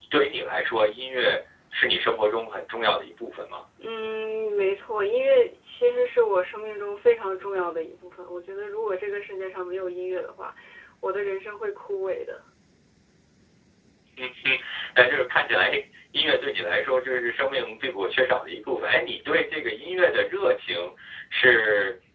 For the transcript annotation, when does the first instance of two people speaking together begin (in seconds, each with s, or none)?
none